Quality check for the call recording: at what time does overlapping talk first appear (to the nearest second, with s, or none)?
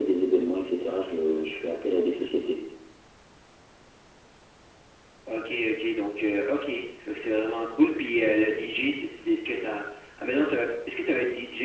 none